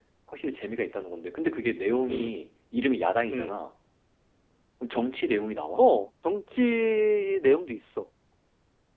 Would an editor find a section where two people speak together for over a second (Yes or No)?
No